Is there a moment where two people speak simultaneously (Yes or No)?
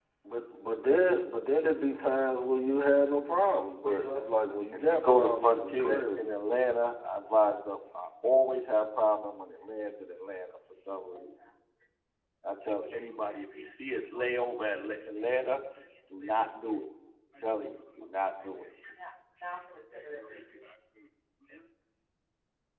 Yes